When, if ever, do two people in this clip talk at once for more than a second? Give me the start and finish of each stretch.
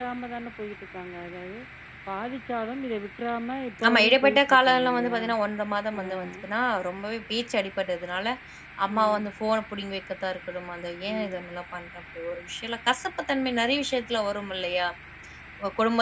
3.9-5.2

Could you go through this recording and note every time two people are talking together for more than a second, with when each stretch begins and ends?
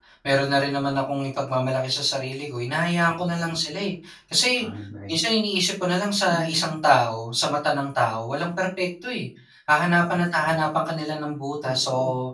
none

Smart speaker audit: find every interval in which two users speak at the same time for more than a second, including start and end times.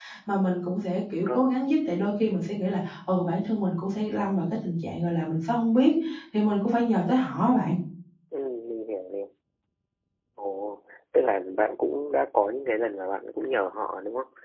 none

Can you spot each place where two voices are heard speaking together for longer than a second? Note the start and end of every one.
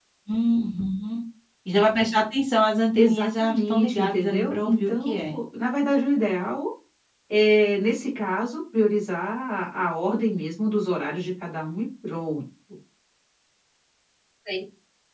3.0-5.4

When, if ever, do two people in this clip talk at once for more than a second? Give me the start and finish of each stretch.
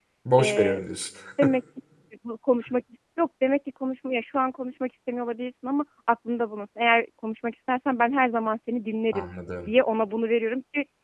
none

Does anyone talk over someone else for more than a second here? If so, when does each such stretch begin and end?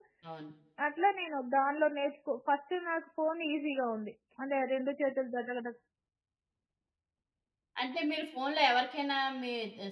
none

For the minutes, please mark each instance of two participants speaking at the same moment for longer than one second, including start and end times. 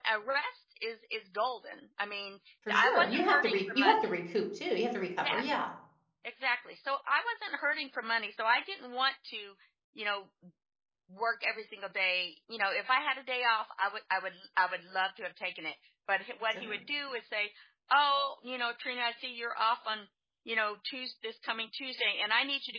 2.7-4.1

